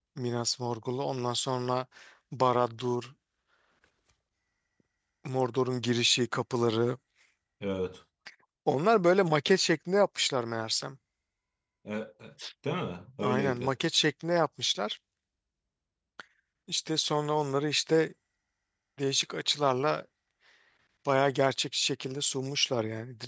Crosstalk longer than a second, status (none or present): none